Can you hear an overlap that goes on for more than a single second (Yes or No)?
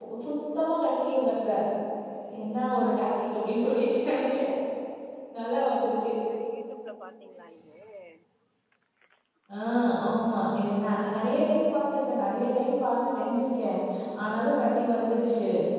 No